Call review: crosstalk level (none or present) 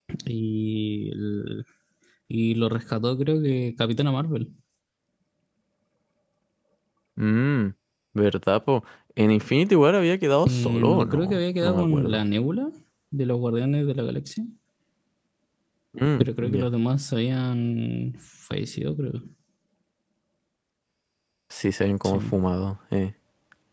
present